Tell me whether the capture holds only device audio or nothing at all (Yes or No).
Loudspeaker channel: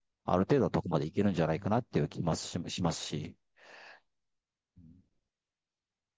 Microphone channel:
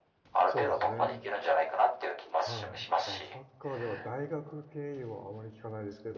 No